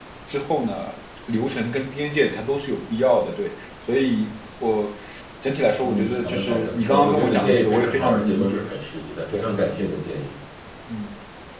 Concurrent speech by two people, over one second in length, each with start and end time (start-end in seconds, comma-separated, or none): 5.8-8.6